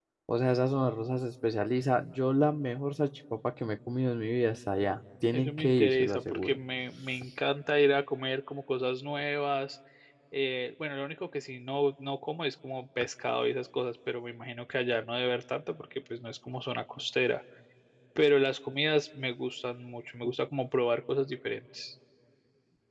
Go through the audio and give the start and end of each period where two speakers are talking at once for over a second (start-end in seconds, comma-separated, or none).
5.3-6.6